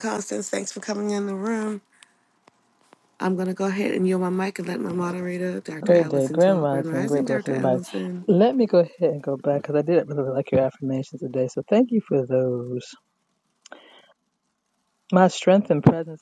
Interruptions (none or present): present